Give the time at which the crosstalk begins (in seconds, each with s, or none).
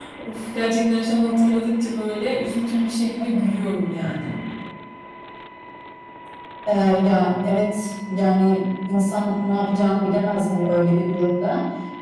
none